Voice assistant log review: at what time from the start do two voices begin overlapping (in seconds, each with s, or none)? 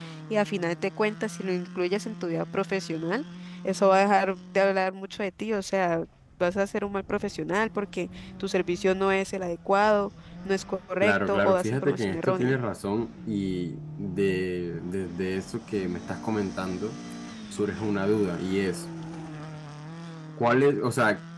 11.0 s